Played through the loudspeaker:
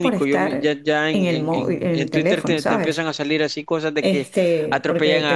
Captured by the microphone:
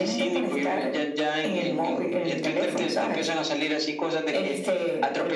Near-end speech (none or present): none